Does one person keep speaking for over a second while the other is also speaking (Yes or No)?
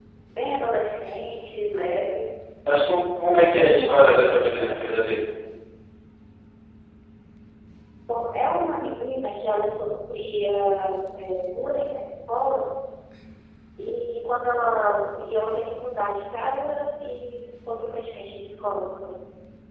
Yes